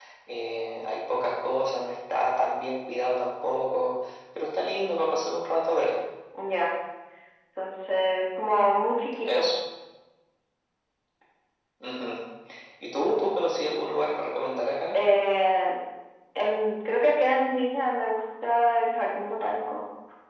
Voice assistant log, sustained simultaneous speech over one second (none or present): none